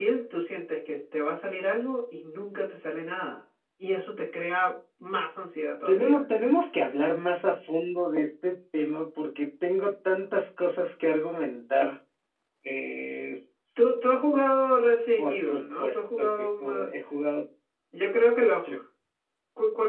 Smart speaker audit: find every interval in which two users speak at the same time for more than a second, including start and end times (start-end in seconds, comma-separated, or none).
15.2-17.0